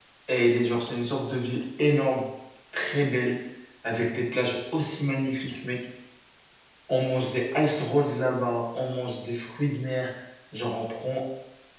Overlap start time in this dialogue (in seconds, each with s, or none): none